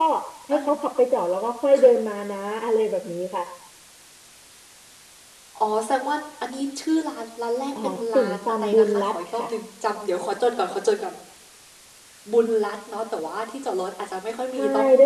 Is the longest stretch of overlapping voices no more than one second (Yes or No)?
No